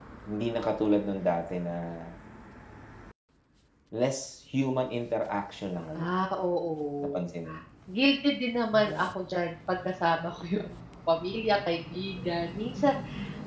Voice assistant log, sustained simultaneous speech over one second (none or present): none